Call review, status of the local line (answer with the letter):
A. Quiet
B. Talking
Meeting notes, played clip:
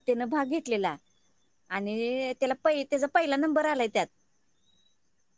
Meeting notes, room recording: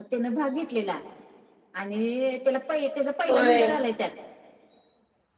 B